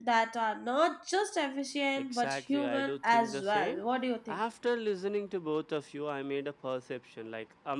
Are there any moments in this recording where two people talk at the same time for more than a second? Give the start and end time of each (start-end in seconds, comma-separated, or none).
2.0-3.8